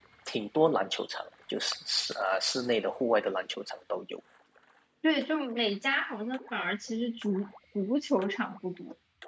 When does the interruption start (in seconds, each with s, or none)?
none